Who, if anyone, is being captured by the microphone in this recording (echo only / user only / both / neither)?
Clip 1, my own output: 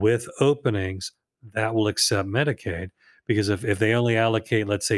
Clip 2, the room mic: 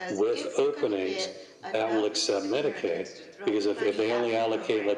both